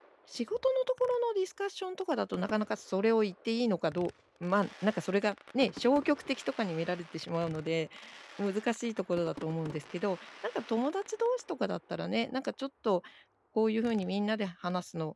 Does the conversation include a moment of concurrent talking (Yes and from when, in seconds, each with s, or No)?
No